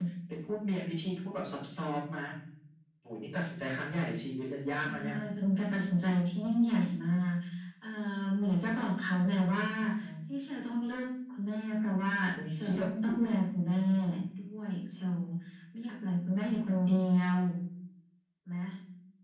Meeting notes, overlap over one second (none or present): none